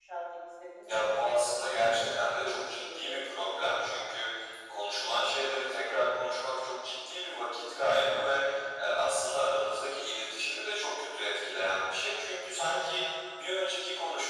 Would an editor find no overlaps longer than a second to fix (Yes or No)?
No